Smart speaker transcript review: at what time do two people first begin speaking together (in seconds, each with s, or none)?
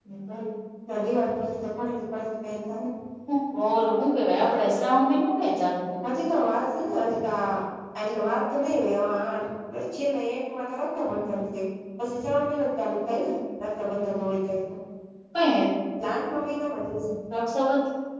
none